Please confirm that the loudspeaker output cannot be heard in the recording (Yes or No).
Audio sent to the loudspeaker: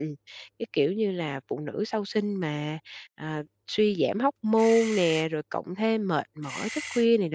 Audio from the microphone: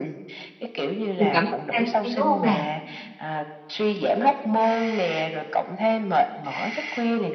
No